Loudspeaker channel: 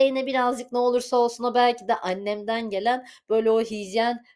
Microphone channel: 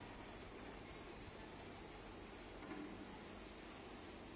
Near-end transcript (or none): none